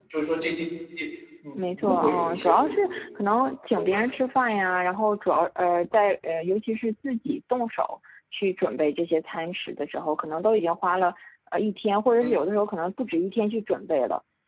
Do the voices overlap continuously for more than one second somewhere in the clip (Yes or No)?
Yes